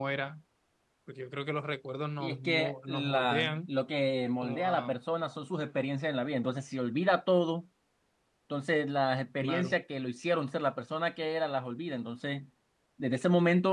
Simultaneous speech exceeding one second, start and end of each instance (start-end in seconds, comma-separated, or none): 2.2-3.7